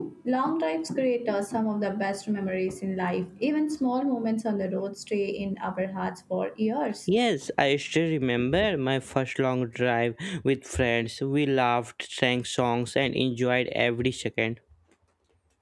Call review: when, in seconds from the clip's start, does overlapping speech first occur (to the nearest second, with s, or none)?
none